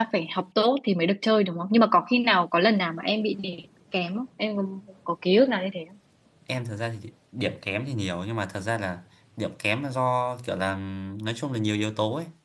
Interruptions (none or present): none